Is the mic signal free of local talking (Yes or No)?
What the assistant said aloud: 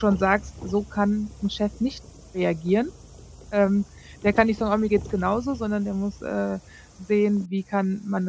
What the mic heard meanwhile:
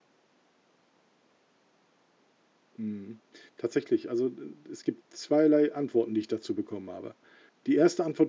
No